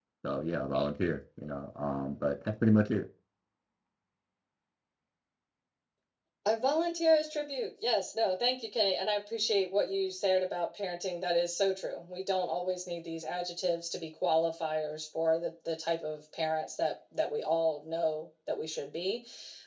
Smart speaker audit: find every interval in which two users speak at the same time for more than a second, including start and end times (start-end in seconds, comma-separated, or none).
none